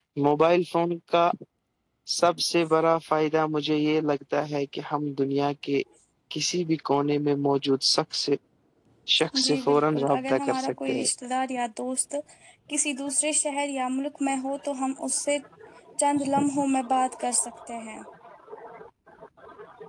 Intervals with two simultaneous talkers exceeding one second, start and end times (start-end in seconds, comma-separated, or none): 9.4-11.1